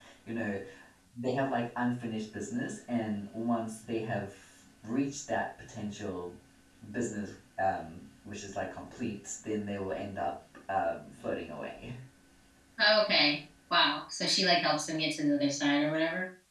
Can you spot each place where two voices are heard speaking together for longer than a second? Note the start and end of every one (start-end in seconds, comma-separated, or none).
none